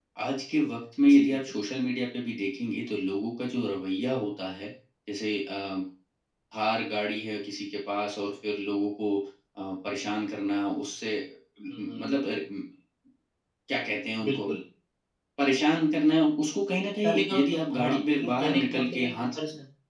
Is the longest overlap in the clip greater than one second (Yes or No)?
Yes